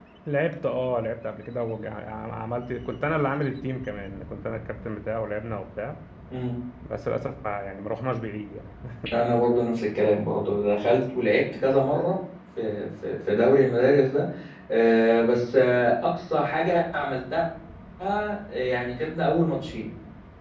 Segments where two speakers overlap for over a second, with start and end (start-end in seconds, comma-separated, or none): none